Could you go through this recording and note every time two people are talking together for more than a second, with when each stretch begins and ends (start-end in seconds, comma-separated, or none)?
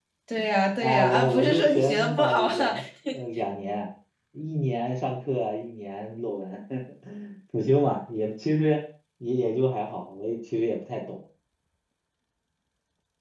0.8-2.7